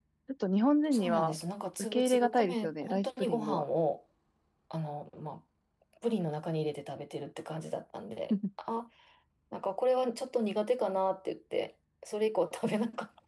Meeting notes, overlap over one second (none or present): present